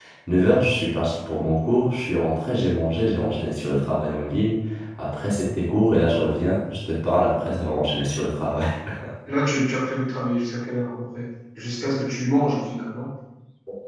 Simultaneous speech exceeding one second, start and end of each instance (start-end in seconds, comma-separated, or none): none